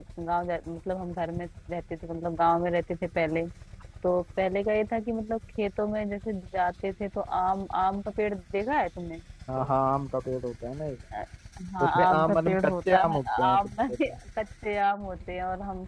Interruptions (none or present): present